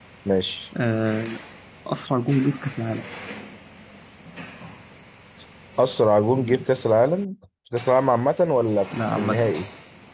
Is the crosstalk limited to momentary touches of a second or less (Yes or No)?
Yes